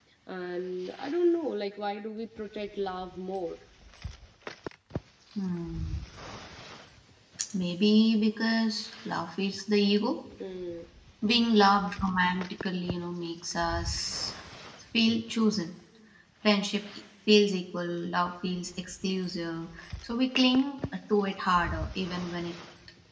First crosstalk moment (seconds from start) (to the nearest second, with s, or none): none